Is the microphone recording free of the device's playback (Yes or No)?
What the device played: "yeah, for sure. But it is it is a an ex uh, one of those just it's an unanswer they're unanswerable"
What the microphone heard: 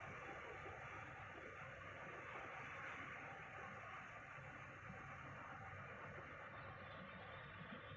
Yes